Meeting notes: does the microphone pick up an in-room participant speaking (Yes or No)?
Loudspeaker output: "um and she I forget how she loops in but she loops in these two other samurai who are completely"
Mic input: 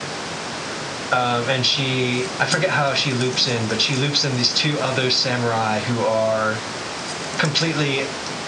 No